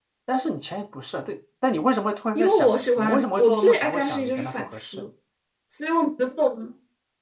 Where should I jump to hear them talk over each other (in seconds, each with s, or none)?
2.4 s